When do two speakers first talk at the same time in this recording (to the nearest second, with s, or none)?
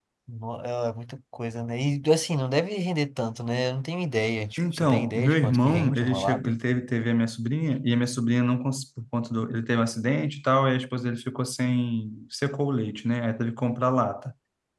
5 s